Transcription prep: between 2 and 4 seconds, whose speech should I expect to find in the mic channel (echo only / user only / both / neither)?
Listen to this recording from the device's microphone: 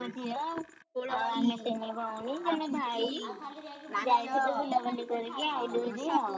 both